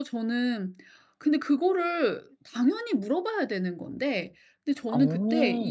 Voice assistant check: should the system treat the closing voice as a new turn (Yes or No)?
No